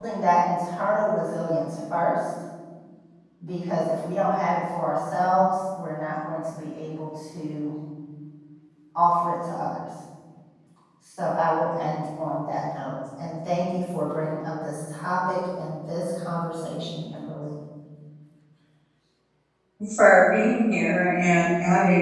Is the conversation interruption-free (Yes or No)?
Yes